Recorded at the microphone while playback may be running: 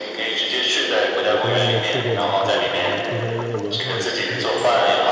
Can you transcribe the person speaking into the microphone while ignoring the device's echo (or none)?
对，不知道你有没有去过蒙特利尔，然后听说那边的文化也不太一样。